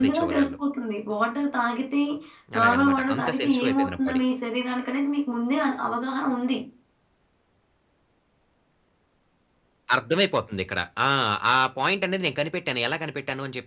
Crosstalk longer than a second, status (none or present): present